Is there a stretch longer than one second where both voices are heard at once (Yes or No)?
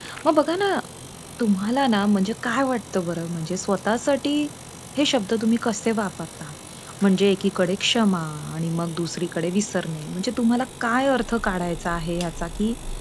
No